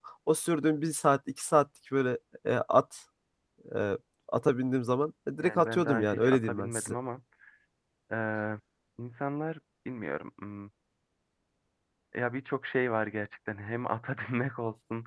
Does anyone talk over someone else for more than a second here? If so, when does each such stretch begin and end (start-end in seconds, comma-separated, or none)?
5.4-6.9